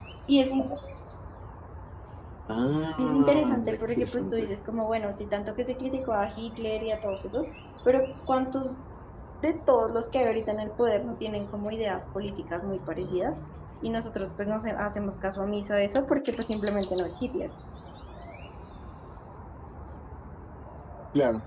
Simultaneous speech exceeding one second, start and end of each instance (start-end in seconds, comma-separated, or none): 3.0-4.6